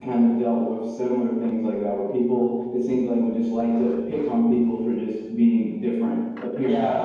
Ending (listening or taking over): taking over